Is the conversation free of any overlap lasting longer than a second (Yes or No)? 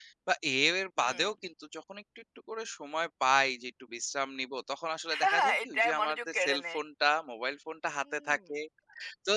No